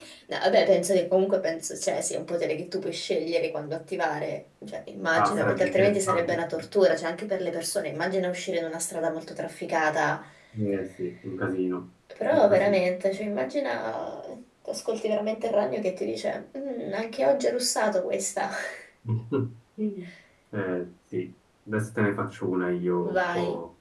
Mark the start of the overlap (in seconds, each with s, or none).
5.1 s